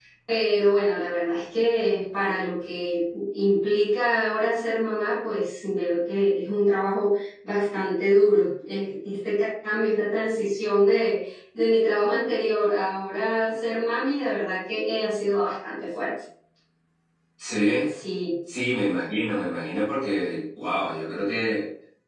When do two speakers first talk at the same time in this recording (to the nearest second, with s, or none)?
none